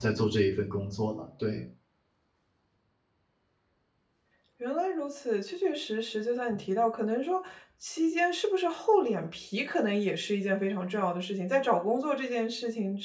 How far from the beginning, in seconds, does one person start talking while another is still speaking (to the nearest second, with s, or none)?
none